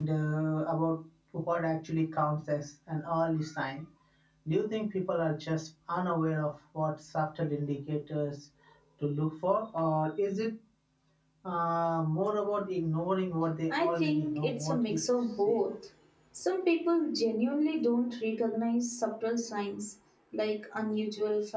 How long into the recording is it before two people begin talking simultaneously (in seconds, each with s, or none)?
13.7 s